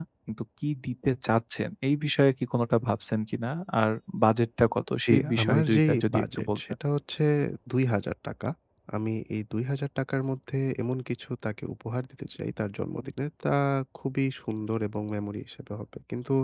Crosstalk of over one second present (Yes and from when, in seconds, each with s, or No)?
Yes, from 5.1 s